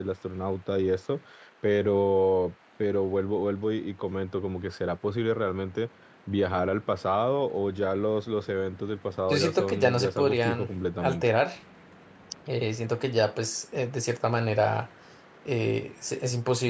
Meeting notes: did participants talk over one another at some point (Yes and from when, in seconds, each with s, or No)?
Yes, from 9.3 s